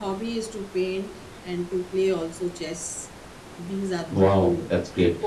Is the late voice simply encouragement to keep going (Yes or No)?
No